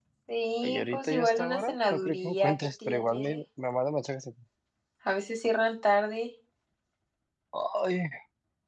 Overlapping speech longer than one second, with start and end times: 0.6-3.4

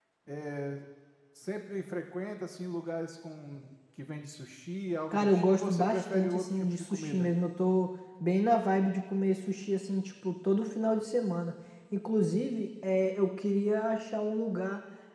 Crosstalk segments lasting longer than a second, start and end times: 5.1-7.3

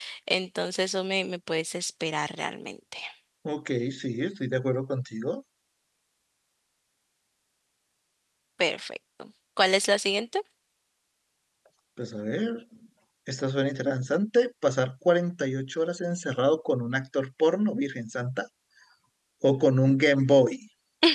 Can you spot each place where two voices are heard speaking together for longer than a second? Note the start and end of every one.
none

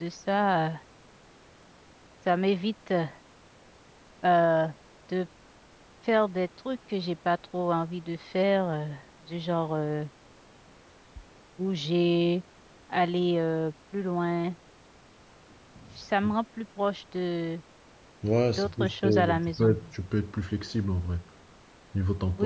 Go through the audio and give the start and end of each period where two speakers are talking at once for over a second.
18.5-19.7

